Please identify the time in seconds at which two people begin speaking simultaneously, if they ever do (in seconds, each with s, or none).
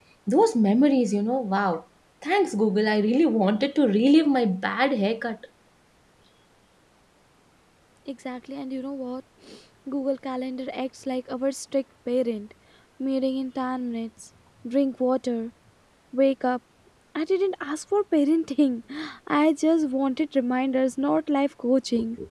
none